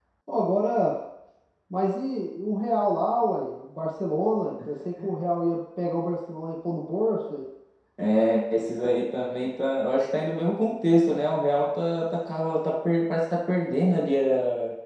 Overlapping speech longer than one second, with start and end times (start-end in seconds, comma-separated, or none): none